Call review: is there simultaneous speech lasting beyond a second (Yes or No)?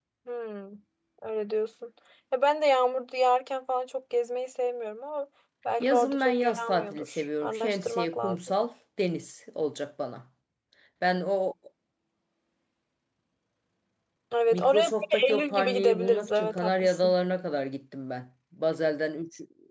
Yes